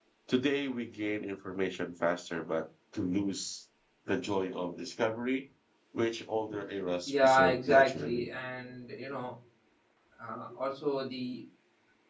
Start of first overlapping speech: 7.1 s

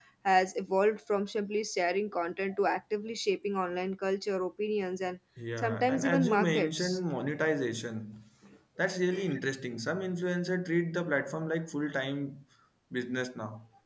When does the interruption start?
5.4 s

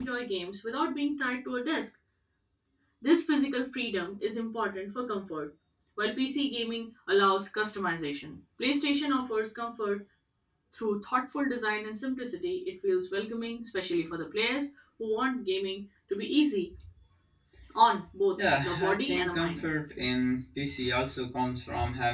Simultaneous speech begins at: 18.4 s

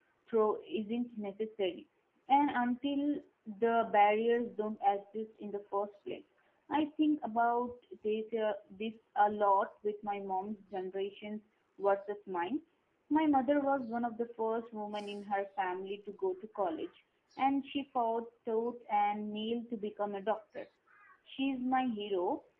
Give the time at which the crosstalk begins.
none

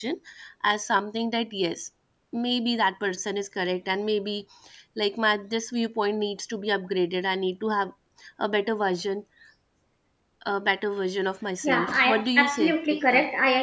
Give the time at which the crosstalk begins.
11.6 s

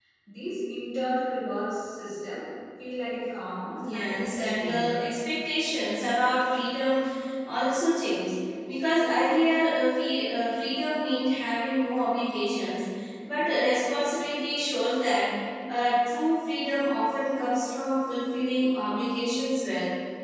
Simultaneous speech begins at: 3.7 s

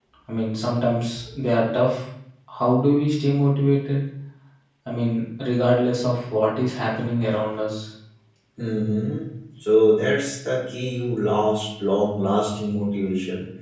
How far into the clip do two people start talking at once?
none

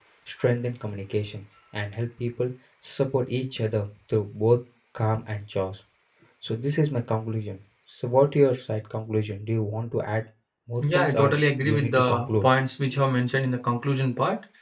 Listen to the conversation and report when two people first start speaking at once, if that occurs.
10.8 s

